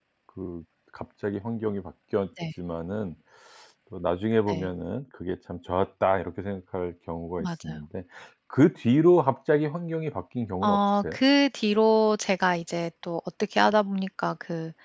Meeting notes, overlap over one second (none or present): none